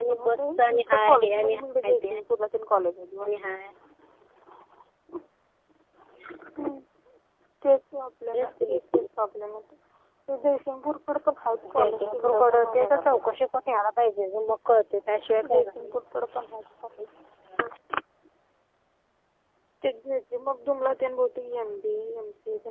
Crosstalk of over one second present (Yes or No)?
Yes